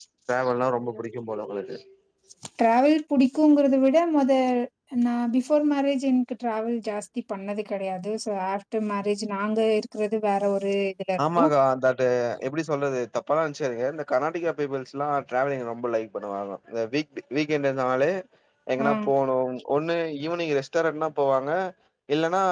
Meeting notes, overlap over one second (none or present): none